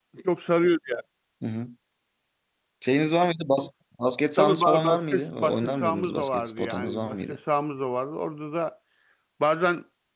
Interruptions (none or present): present